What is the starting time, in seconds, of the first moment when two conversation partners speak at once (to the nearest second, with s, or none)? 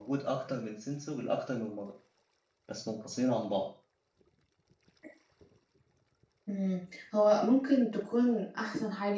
none